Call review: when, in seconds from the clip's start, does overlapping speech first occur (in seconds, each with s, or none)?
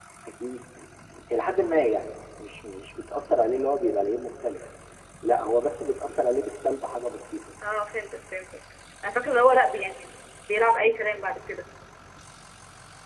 none